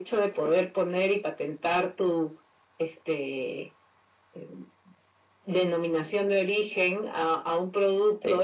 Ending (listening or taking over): listening